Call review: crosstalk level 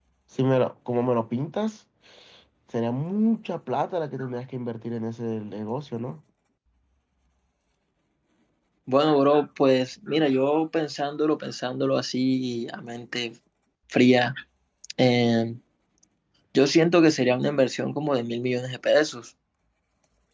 none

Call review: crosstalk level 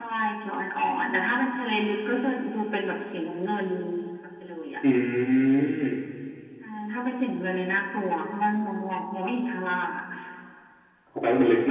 none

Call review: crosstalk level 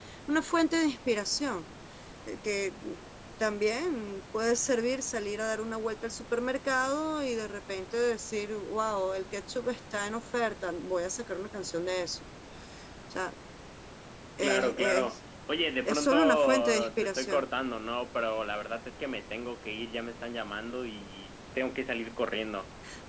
present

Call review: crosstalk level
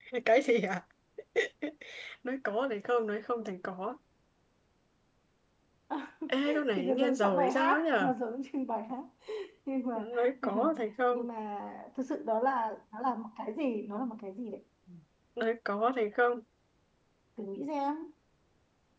present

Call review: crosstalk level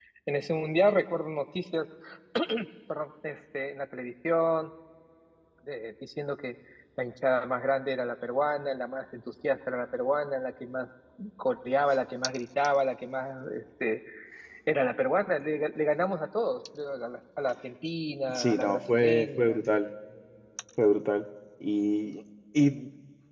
present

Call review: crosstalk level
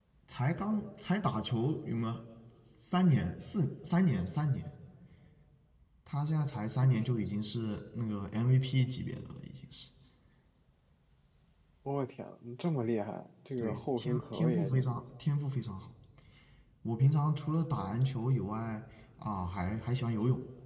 present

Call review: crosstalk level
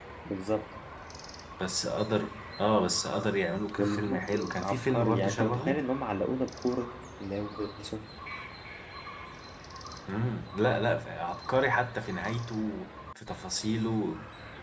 present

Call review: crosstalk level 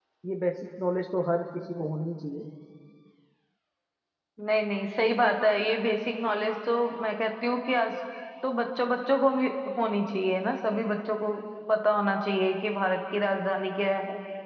none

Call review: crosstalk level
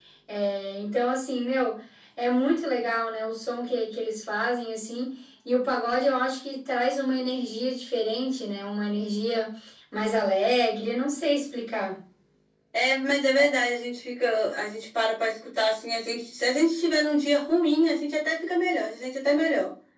none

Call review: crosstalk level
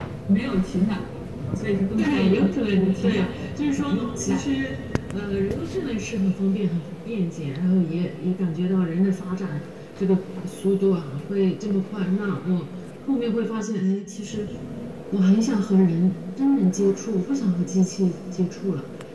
present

